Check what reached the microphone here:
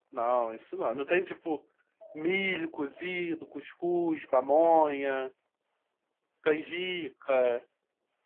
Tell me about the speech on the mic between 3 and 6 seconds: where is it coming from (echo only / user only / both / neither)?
user only